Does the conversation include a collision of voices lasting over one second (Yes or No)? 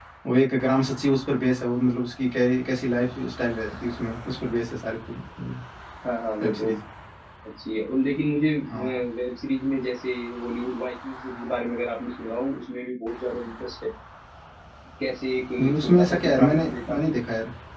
Yes